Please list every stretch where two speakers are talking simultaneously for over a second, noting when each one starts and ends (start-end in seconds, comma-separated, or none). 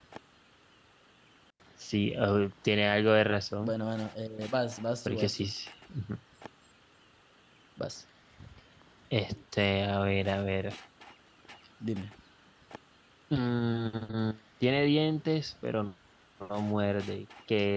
none